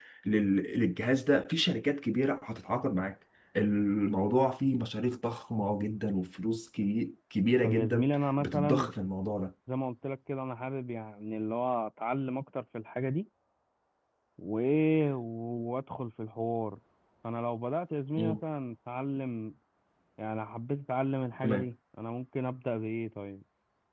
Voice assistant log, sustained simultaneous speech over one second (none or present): present